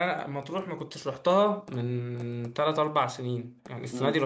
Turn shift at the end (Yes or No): No